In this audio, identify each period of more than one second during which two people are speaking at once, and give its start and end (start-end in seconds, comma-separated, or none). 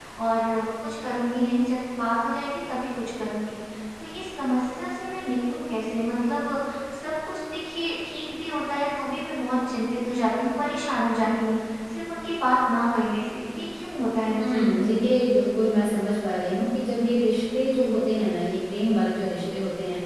none